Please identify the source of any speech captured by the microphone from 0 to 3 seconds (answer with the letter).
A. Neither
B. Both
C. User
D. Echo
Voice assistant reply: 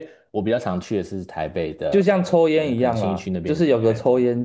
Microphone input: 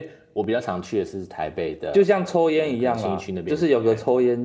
D